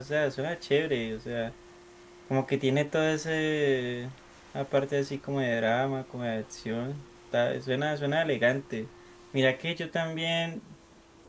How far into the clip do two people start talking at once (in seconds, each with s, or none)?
none